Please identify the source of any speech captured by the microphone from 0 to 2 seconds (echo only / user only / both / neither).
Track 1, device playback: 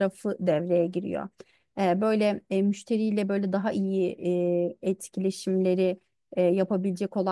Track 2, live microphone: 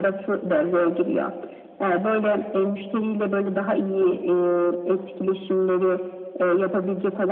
echo only